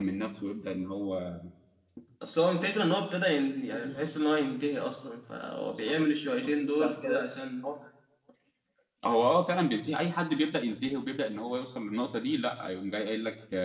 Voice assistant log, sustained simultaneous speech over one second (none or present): none